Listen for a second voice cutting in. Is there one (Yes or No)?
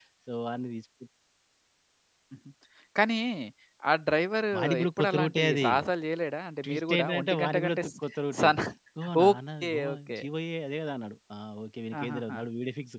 Yes